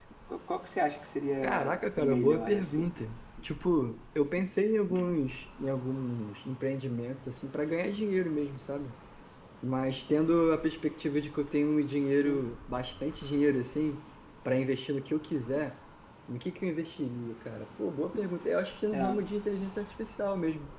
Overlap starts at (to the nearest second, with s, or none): 1 s